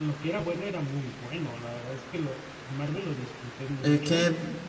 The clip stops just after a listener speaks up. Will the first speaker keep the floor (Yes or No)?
No